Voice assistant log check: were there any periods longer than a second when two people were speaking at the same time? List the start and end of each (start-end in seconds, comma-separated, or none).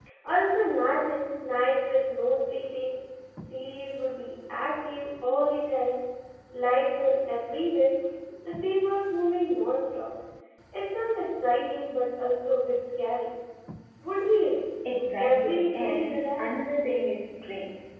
15.2-16.4